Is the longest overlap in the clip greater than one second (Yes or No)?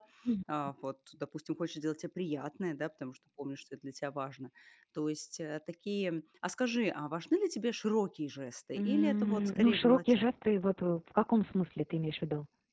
Yes